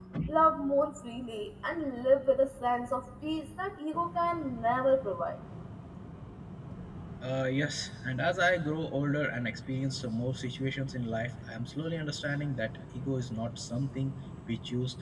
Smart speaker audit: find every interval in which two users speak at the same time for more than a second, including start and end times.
none

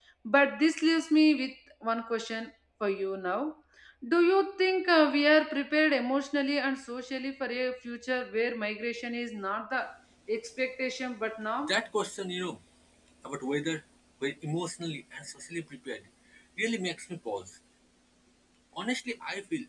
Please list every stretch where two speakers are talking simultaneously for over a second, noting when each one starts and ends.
none

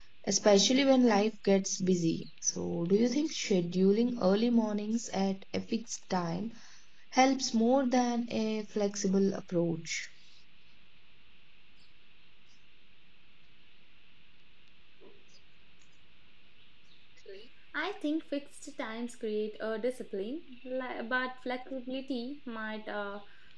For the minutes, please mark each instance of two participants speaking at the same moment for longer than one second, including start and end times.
none

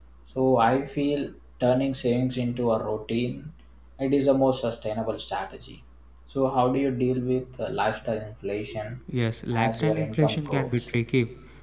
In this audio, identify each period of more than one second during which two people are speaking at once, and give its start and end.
9.5-10.7

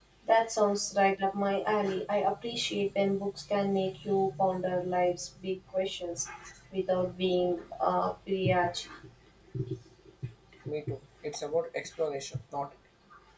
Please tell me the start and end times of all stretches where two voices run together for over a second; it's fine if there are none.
none

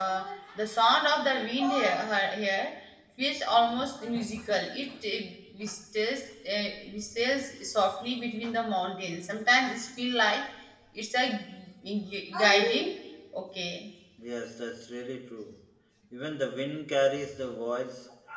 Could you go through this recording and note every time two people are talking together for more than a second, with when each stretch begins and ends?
none

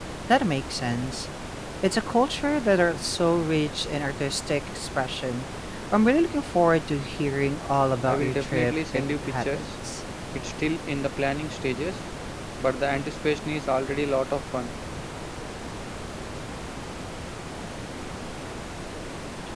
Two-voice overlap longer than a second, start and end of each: 8.1-9.7

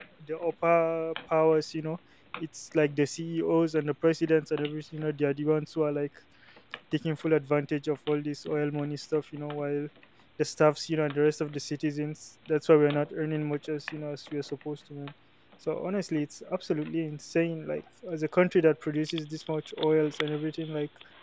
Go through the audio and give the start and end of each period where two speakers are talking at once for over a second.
none

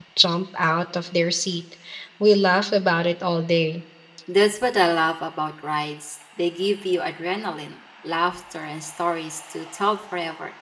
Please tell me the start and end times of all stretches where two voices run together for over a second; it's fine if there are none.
none

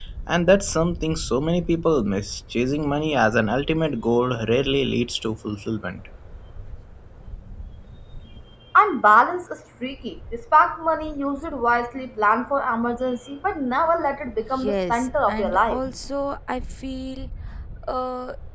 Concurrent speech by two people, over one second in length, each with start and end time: 14.5-15.8

